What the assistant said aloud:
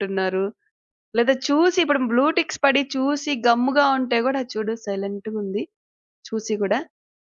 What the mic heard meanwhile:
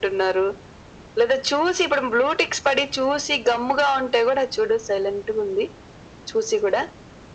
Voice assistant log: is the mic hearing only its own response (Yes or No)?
Yes